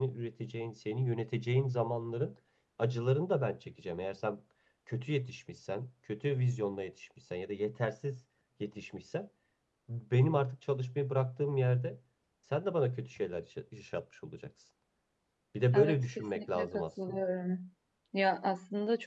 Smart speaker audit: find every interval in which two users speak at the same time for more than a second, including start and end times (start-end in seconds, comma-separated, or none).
15.7-17.2